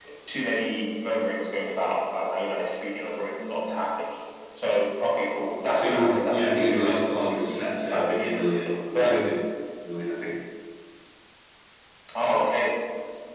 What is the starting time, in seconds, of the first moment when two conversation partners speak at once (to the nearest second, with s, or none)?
6 s